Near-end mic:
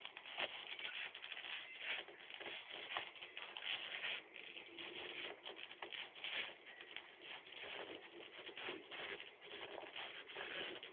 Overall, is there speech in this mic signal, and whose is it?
neither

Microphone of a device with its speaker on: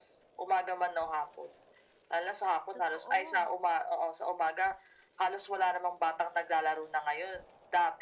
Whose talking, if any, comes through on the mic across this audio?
both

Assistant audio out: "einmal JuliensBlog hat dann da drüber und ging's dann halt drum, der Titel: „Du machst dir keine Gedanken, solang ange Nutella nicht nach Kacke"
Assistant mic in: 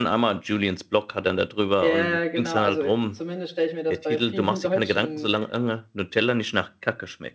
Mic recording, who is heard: both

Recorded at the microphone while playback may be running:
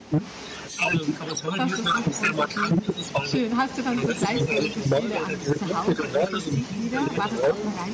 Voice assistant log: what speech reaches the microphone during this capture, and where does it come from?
both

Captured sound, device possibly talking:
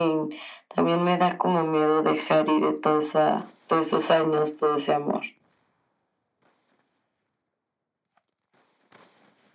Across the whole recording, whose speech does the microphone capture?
echo only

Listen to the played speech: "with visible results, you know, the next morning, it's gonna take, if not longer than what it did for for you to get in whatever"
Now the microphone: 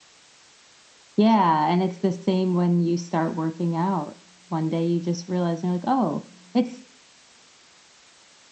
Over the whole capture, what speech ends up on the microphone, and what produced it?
user only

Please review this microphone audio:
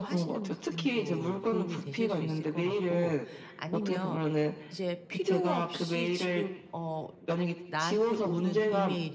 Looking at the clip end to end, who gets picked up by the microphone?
both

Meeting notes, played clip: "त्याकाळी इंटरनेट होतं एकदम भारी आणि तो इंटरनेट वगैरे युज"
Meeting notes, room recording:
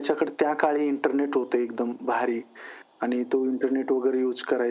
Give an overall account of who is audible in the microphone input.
echo only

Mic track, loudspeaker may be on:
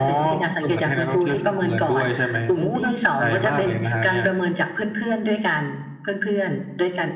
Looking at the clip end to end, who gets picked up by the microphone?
echo only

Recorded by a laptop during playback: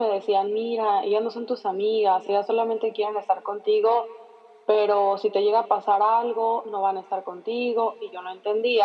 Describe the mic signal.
echo only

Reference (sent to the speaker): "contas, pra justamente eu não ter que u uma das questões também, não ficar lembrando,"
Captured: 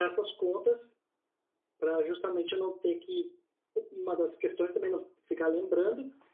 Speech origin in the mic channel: echo only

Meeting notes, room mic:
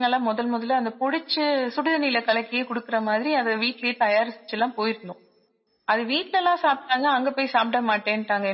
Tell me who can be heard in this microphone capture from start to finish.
echo only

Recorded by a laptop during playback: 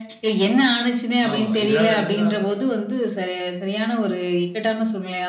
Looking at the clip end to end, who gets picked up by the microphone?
both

